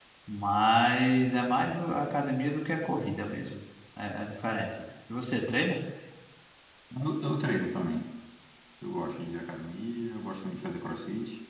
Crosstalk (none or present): none